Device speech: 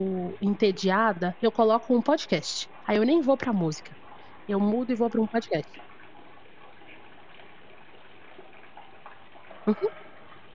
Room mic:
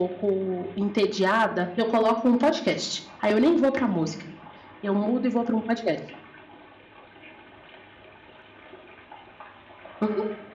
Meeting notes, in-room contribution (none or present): none